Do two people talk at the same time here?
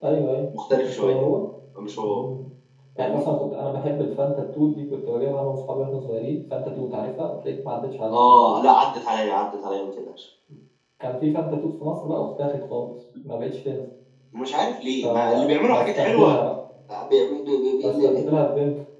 Yes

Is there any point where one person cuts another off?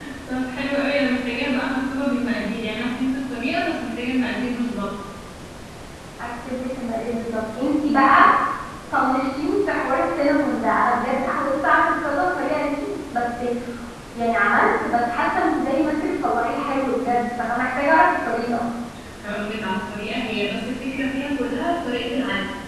No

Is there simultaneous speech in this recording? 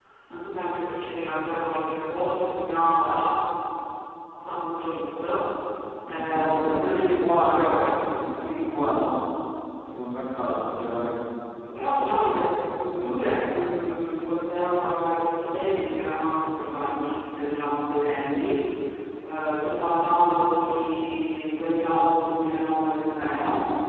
Yes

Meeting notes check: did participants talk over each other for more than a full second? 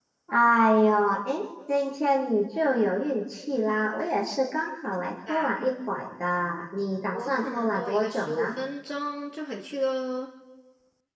Yes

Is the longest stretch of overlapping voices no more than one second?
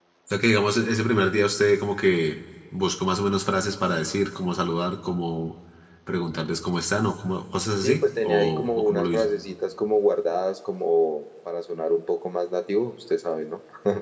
No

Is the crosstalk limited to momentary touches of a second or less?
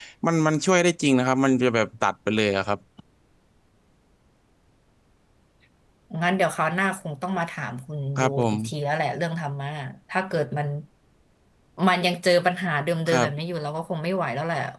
Yes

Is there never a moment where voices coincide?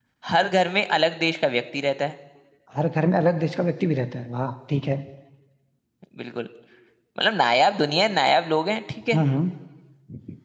Yes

